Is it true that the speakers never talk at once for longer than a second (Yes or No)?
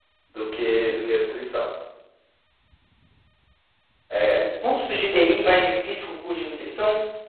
Yes